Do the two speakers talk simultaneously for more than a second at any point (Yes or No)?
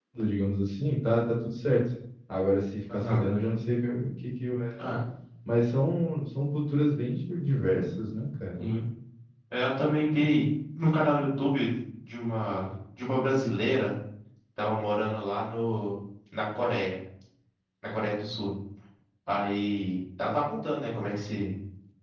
No